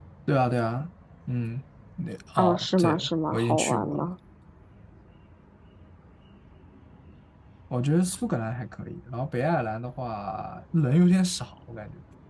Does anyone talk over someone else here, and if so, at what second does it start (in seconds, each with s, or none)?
2.4 s